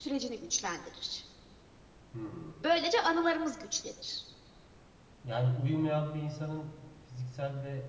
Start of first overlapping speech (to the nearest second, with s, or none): none